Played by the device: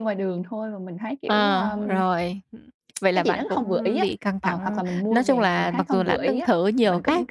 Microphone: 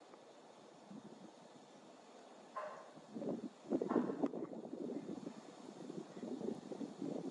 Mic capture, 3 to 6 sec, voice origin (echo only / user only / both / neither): neither